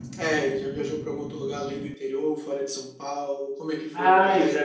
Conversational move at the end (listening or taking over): taking over